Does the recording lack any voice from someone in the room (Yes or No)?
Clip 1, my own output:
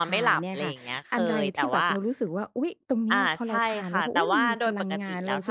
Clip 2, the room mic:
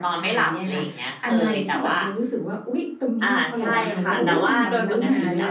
No